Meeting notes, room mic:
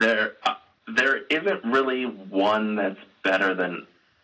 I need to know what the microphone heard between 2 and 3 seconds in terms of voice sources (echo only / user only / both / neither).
echo only